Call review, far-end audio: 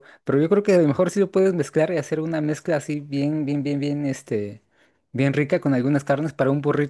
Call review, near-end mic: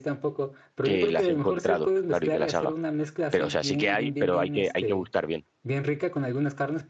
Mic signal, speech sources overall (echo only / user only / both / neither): both